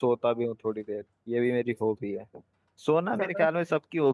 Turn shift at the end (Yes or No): No